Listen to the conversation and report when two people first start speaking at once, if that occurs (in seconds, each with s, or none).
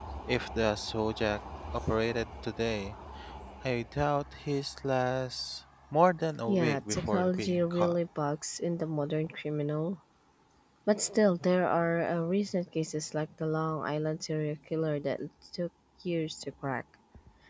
6.5 s